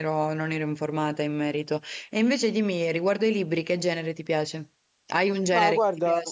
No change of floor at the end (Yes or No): No